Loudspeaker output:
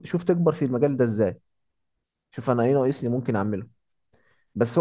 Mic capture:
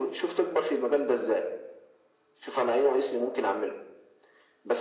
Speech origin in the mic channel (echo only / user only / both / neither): echo only